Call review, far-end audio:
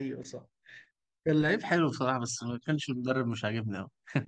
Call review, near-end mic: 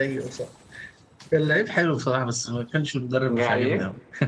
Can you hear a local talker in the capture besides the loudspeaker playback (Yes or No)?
Yes